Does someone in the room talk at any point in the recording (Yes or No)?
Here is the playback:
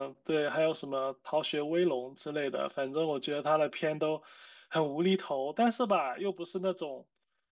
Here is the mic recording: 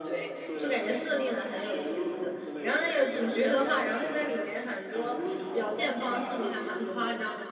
Yes